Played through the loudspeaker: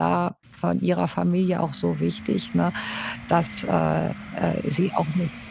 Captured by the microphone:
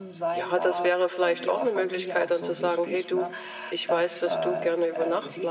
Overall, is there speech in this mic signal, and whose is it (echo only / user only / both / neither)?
both